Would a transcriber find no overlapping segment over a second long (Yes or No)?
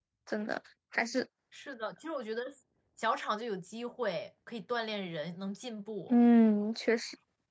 Yes